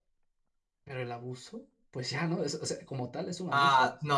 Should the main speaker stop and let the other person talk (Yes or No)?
Yes